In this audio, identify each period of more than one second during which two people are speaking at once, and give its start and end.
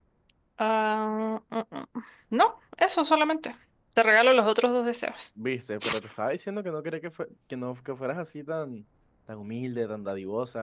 none

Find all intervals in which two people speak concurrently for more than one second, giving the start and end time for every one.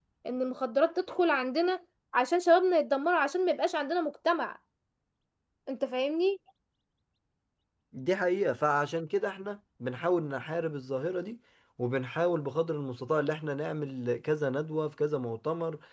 none

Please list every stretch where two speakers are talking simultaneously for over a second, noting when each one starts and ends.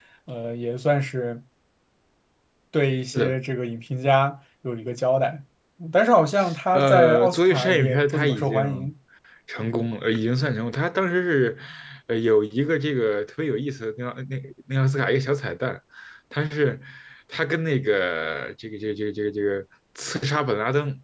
6.7-8.6

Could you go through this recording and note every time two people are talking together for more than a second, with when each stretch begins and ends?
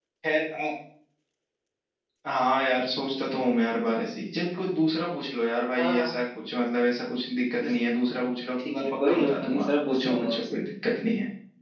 8.7-10.6

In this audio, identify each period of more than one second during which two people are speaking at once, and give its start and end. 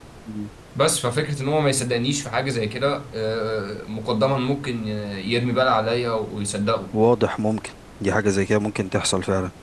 none

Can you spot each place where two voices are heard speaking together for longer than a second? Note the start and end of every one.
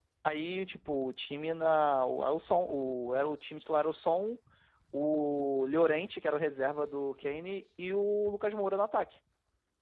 none

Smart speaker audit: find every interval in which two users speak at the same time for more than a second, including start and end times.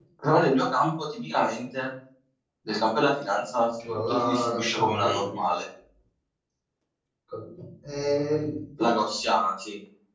4.1-5.3

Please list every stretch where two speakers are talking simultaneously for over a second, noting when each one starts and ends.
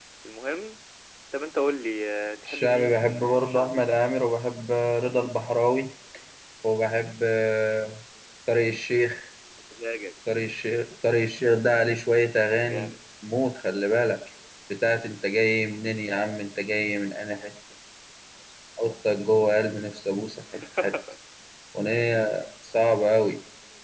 2.5-3.9

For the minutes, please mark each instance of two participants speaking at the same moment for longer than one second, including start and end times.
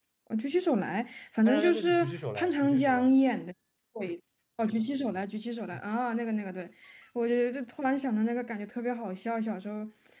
1.4-3.1

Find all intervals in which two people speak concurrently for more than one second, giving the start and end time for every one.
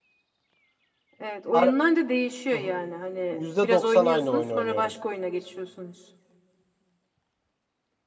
3.3-4.9

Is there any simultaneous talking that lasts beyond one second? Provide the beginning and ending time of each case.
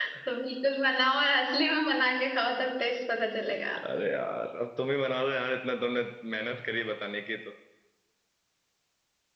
none

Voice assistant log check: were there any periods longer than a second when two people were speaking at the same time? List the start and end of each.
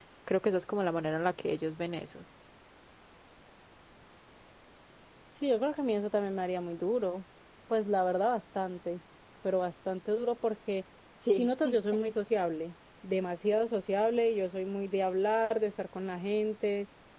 none

